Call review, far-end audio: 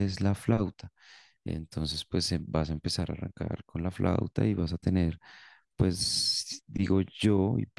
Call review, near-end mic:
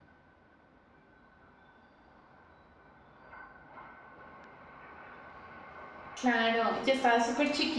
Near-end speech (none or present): present